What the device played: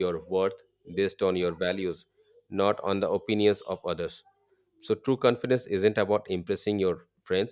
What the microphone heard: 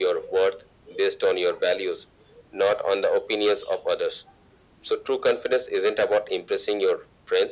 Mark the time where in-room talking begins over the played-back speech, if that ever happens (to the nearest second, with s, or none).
none